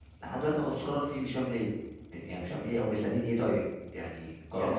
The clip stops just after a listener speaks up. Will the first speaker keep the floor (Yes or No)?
No